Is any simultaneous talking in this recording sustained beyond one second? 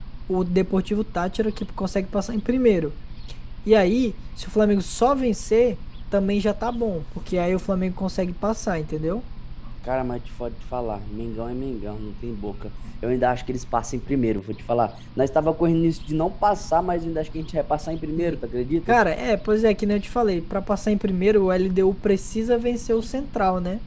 No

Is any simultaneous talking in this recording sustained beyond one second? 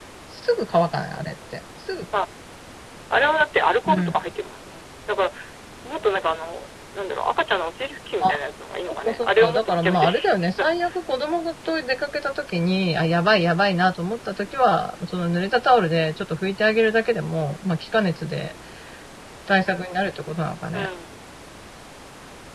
Yes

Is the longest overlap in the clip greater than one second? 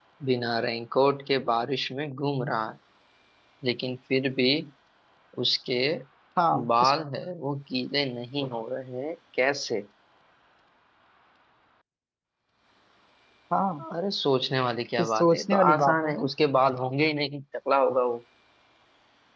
Yes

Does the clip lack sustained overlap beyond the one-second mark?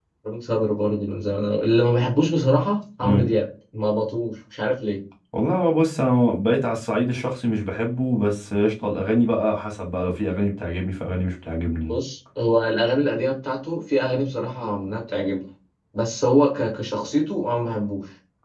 Yes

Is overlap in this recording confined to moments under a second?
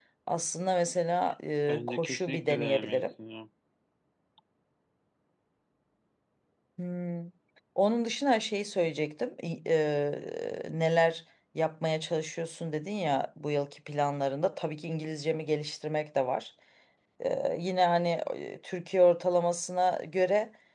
No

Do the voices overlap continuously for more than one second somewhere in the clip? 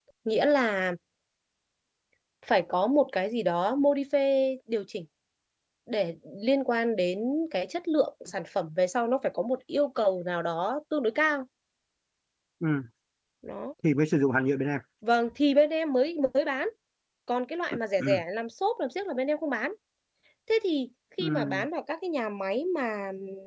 No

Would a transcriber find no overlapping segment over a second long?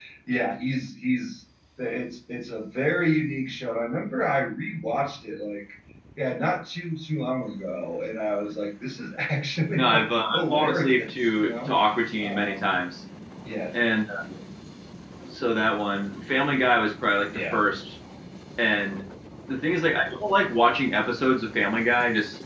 No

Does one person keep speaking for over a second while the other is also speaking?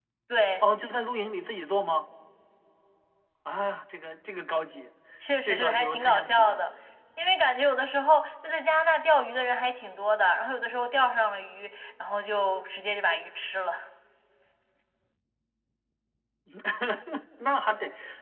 Yes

